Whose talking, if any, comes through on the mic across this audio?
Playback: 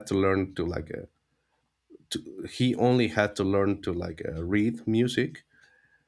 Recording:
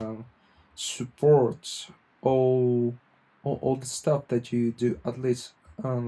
user only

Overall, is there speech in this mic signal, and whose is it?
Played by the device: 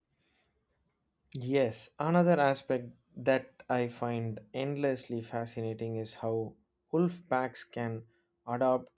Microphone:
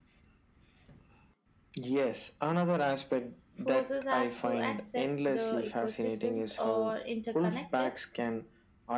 both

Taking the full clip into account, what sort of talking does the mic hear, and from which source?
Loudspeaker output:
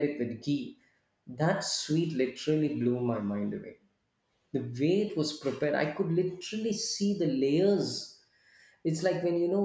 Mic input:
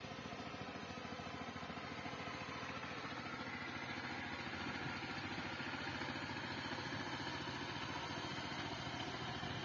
neither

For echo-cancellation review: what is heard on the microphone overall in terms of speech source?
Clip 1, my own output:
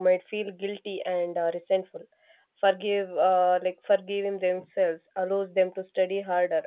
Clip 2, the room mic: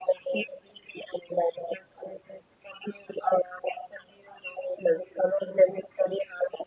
echo only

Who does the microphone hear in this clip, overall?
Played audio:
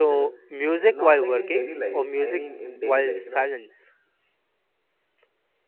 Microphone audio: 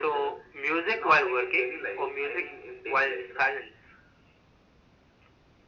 echo only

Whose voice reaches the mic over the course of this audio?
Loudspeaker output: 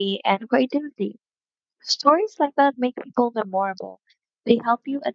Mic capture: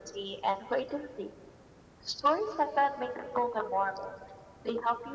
echo only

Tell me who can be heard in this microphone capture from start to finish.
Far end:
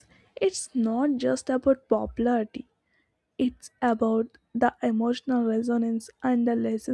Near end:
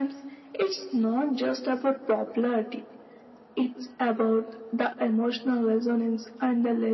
echo only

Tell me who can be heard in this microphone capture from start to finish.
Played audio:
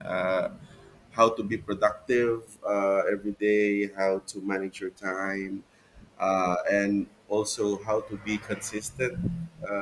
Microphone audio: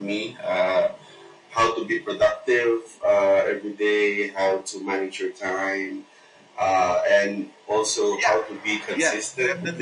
both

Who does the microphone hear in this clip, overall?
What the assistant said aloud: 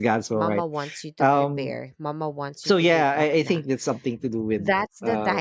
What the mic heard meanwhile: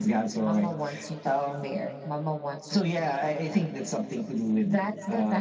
echo only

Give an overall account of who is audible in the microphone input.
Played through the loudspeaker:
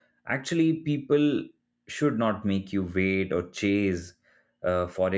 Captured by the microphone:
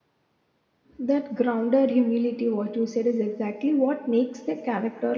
user only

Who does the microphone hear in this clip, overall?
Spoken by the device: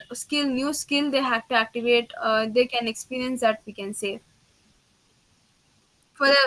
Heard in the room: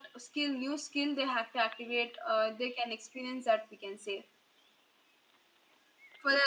echo only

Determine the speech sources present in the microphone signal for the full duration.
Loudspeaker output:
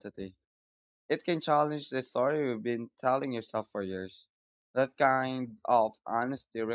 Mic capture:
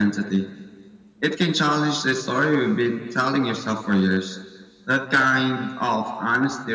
echo only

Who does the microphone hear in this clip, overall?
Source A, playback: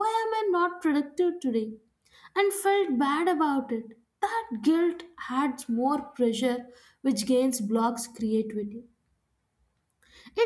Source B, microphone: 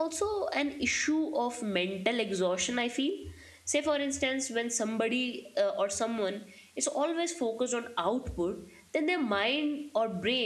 user only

